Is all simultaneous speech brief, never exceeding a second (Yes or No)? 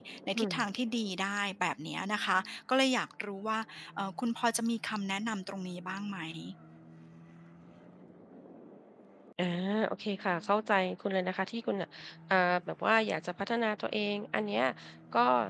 Yes